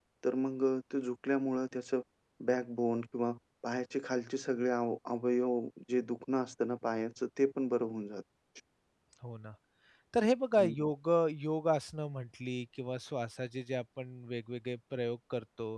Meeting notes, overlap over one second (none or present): none